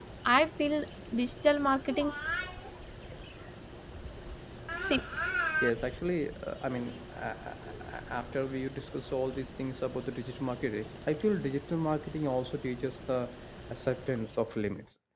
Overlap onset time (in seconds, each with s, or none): none